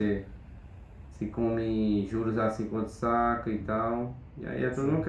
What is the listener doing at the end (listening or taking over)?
taking over